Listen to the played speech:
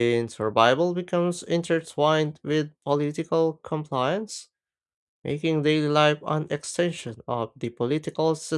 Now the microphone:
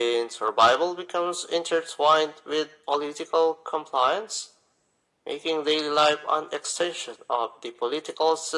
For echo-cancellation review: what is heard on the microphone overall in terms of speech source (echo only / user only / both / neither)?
echo only